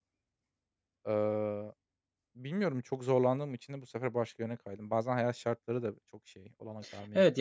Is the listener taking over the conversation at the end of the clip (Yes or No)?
Yes